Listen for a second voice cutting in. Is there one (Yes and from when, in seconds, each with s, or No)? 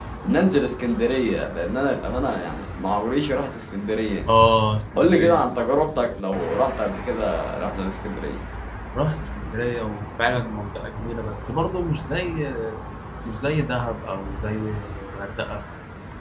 Yes, from 5.0 s